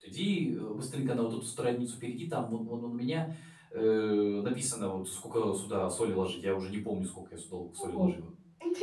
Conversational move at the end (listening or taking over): taking over